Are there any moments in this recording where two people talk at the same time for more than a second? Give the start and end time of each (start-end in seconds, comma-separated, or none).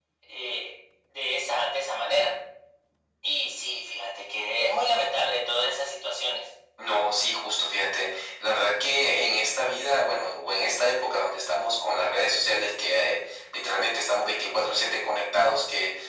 none